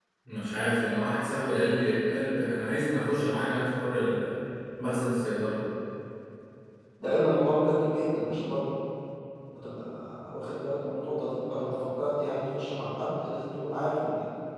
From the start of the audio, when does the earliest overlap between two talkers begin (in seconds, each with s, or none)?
none